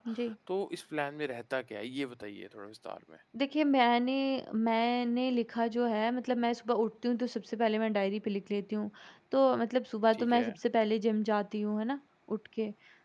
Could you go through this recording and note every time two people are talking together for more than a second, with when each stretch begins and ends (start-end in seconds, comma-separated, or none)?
none